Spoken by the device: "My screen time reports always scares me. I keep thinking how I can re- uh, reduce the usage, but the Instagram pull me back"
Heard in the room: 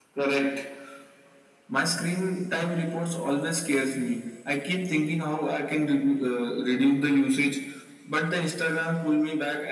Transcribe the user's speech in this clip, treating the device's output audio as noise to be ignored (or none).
none